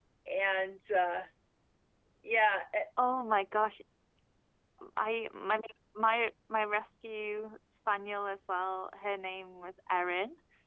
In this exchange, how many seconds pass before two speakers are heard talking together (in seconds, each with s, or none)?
none